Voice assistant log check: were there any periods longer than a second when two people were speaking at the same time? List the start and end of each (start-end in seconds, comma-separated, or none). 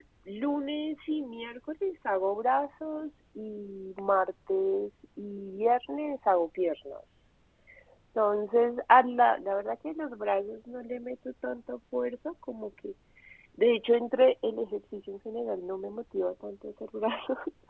none